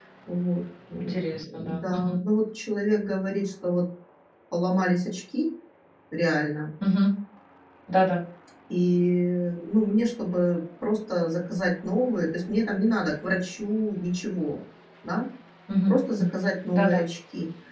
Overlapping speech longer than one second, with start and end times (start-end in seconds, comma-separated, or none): 1.0-2.2